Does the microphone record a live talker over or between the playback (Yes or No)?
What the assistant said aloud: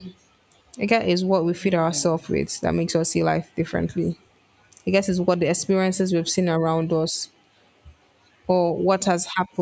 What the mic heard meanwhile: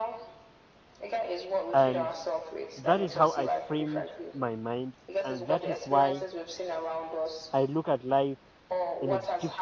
Yes